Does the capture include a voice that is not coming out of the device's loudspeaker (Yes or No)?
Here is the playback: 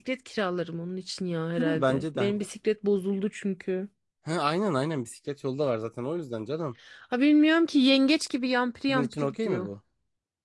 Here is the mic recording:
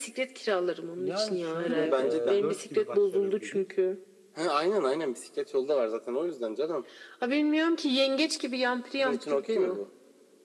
Yes